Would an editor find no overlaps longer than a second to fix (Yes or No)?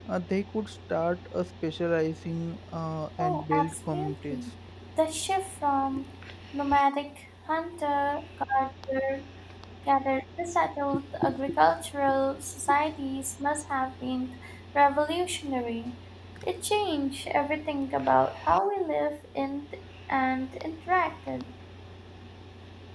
No